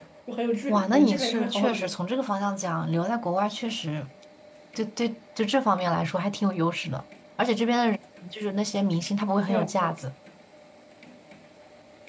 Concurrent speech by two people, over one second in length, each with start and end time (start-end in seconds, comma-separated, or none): 0.7-2.0